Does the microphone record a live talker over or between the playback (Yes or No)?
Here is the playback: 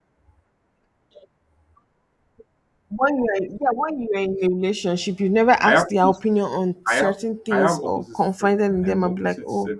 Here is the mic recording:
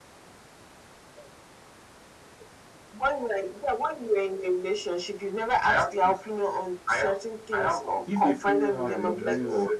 Yes